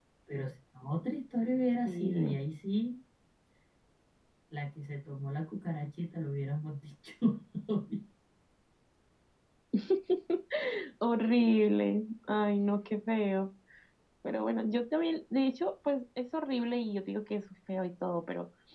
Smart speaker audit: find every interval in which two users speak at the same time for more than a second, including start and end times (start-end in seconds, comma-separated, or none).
none